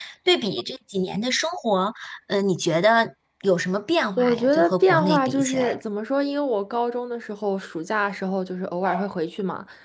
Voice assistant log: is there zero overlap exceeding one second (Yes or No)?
No